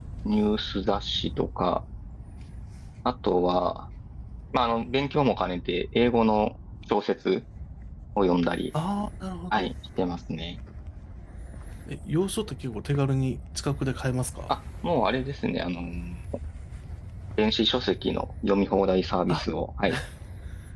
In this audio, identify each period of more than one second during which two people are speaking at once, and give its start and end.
none

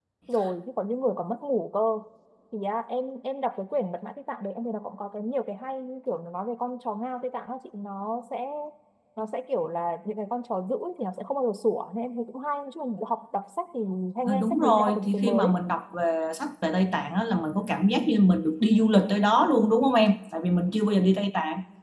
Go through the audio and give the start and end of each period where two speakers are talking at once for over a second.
14.3-15.6

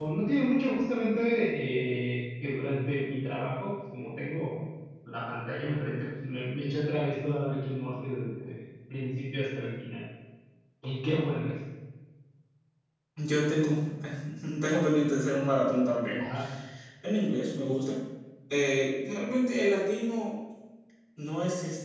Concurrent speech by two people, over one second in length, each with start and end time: none

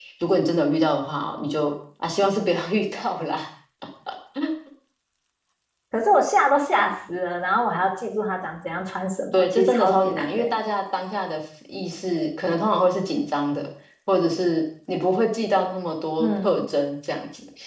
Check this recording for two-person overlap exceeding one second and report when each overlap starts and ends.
9.3-10.6

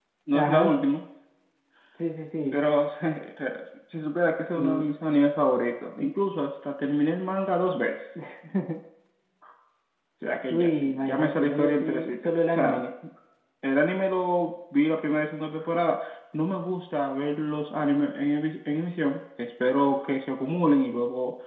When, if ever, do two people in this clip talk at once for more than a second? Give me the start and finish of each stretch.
10.5-12.8

